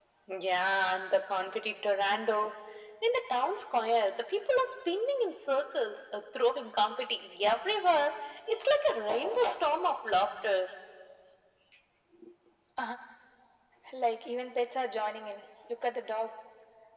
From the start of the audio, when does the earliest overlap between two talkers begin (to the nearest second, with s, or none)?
none